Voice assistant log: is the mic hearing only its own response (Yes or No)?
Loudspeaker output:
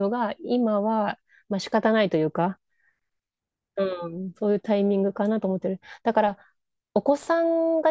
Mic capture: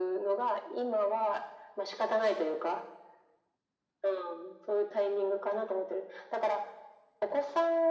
Yes